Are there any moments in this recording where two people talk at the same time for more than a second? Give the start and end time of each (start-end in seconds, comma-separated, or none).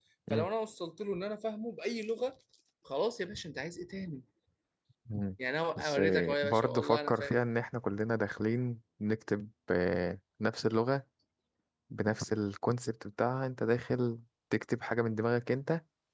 5.8-7.4